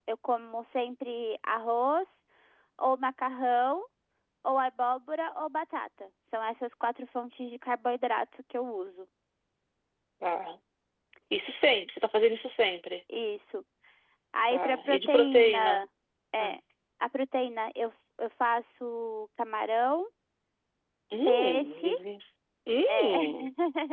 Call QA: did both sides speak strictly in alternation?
No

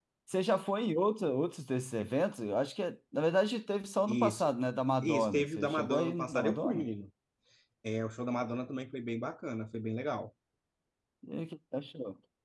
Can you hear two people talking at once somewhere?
Yes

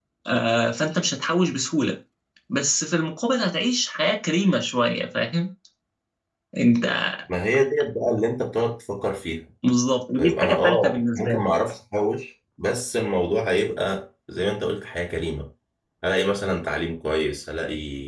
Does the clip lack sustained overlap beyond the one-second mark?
No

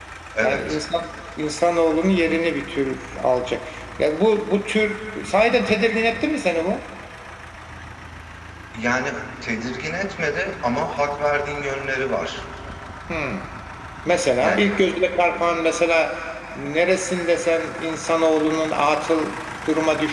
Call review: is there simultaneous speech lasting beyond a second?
No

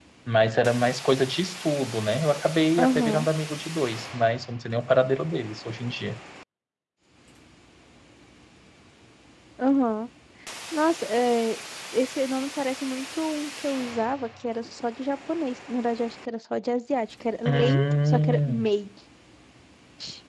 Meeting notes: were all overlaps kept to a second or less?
No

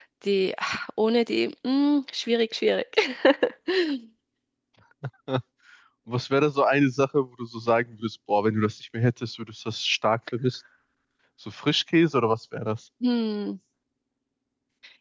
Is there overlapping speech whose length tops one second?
No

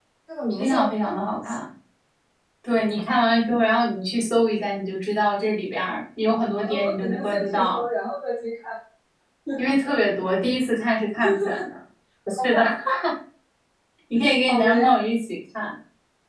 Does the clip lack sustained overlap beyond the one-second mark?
No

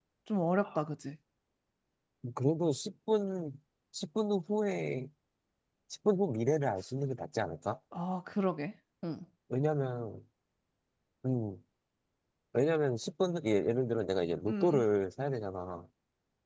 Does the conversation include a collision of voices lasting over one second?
No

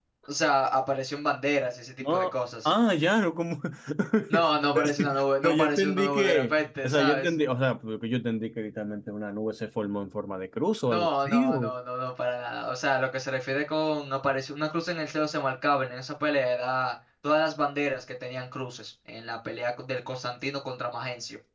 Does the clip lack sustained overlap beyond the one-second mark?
No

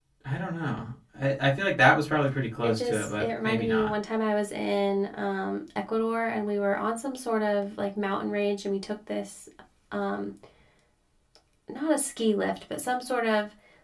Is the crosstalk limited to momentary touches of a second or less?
No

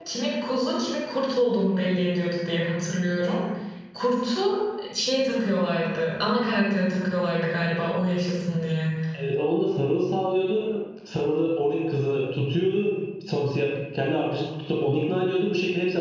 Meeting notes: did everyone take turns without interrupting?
Yes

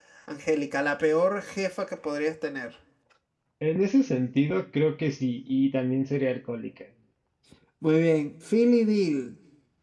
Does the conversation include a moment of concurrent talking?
No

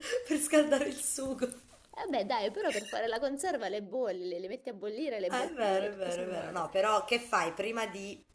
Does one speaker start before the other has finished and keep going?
Yes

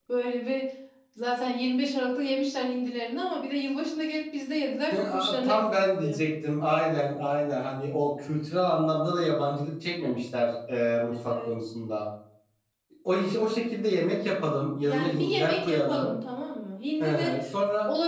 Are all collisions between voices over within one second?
No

